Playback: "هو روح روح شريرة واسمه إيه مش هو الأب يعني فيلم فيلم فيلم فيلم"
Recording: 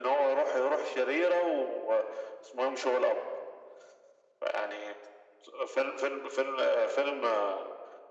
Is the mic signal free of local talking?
Yes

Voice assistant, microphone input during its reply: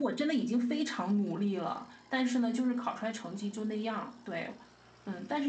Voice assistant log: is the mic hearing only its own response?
No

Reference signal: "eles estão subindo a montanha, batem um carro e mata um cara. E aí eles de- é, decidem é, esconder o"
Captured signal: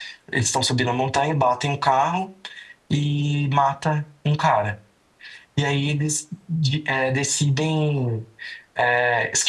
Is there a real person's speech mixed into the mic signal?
No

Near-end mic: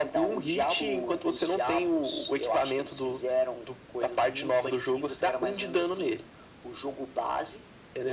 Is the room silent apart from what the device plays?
Yes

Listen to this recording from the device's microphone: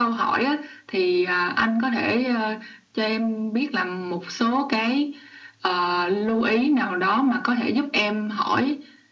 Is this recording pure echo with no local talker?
Yes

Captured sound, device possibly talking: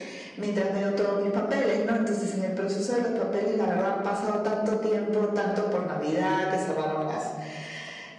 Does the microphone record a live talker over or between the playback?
No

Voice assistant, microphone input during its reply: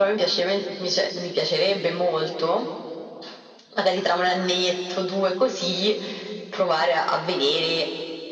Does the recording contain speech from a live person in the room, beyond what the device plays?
No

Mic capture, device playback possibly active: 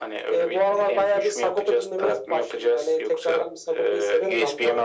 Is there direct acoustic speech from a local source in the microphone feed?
No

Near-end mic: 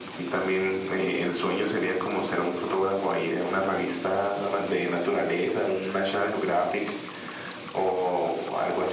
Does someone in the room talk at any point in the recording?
No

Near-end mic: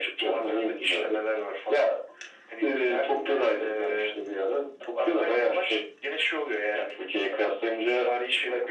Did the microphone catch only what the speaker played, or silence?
Yes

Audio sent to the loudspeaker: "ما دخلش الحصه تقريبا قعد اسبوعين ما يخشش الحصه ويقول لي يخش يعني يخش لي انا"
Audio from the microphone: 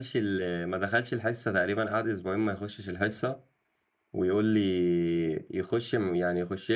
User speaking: No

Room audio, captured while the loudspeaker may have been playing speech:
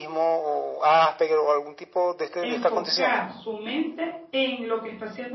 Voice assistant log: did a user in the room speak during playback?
Yes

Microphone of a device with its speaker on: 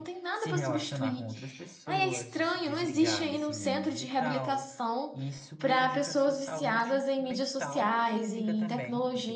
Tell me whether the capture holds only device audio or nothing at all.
No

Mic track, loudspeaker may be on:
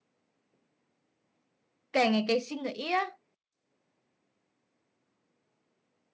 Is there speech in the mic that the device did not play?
Yes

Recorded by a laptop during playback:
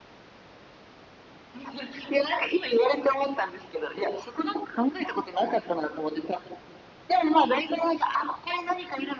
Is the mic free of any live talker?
Yes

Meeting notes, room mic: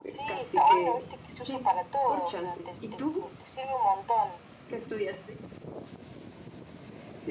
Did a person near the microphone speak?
Yes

